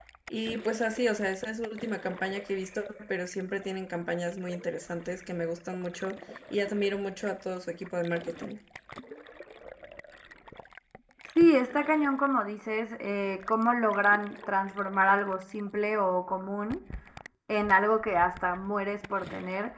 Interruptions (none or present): none